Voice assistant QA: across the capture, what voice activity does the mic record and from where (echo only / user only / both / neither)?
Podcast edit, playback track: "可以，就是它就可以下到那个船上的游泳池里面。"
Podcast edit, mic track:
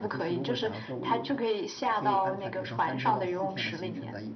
both